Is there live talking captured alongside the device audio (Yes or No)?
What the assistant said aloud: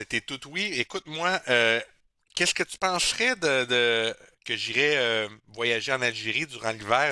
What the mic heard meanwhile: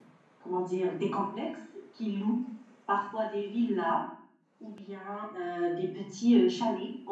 Yes